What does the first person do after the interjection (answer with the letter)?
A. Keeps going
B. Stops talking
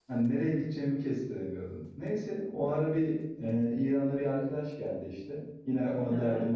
A